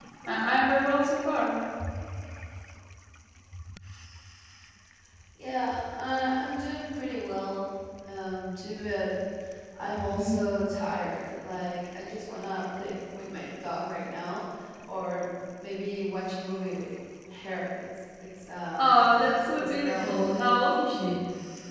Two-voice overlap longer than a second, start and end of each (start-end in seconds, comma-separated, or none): none